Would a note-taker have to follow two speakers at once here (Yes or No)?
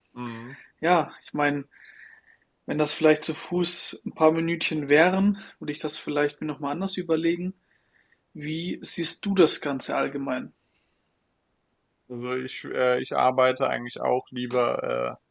No